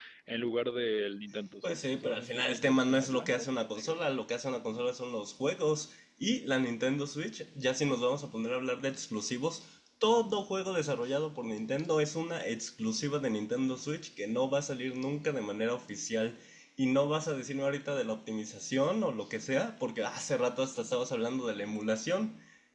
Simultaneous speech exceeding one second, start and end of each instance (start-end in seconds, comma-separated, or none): 1.6-4.0